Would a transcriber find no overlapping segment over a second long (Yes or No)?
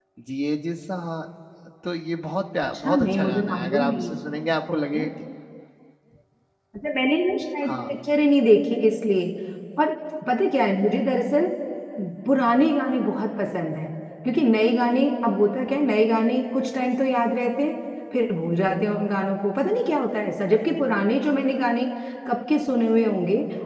No